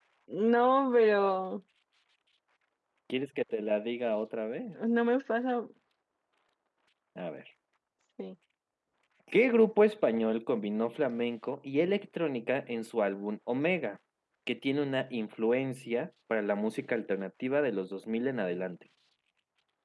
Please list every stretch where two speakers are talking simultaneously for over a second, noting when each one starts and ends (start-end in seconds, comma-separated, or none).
none